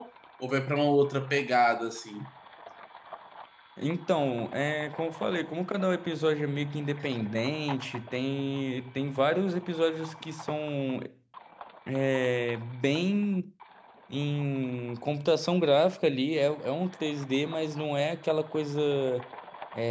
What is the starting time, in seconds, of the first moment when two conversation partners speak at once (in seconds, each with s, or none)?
none